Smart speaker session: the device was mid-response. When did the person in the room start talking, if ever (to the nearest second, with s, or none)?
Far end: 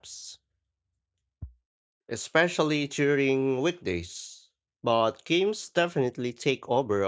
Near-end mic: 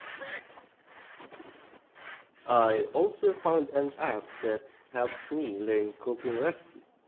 2 s